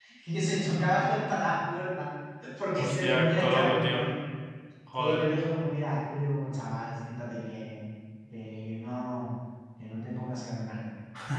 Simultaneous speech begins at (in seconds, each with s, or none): 2.8 s